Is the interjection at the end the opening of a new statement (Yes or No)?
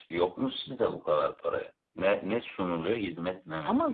Yes